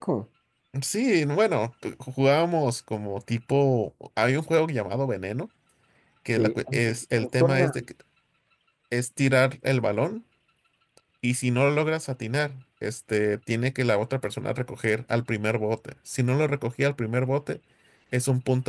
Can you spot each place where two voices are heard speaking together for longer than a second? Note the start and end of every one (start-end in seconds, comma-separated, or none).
6.4-7.7